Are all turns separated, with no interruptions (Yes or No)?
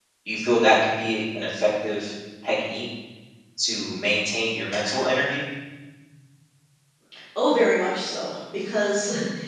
Yes